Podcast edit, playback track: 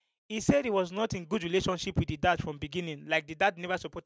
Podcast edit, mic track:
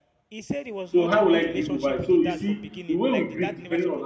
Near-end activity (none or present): present